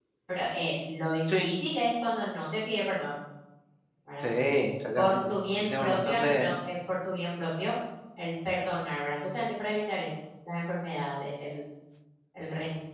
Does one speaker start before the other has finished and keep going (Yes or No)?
Yes